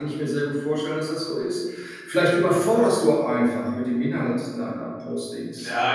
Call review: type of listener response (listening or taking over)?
taking over